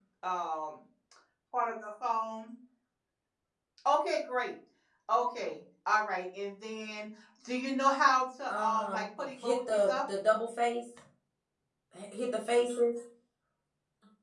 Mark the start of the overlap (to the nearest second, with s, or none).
8 s